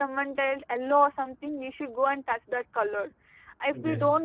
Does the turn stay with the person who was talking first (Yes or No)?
Yes